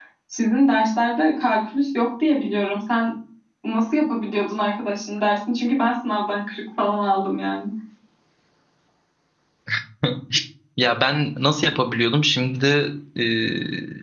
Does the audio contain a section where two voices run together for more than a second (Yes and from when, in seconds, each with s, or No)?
No